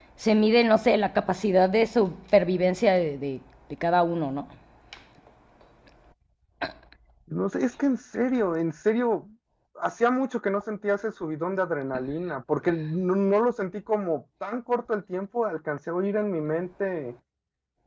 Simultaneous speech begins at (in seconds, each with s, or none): none